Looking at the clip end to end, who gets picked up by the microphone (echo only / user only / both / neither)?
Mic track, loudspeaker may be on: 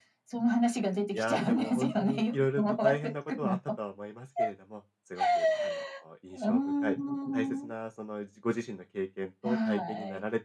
both